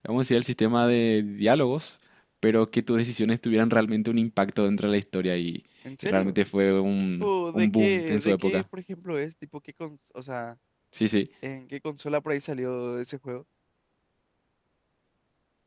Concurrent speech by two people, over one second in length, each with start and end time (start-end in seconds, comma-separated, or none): 7.2-8.6